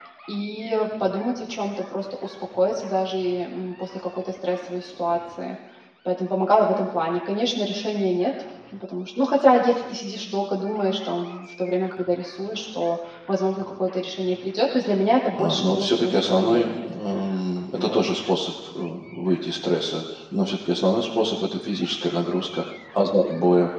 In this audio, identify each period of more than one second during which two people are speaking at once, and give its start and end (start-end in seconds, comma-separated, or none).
15.3-16.8